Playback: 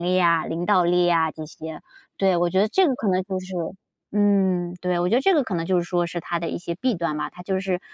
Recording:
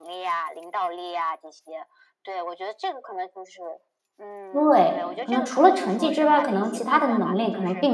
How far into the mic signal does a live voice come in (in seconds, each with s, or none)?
4.5 s